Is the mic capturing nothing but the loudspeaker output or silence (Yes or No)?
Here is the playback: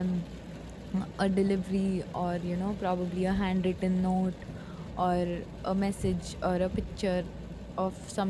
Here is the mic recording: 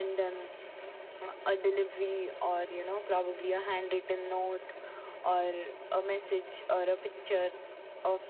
Yes